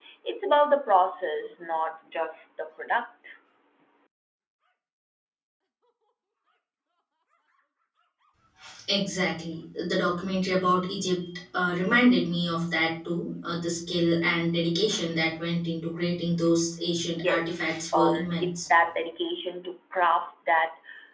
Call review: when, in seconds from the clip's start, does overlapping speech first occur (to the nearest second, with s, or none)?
17 s